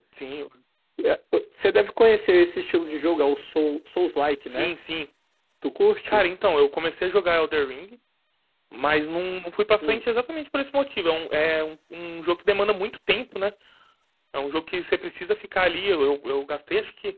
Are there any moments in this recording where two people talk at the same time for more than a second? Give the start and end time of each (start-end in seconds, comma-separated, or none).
none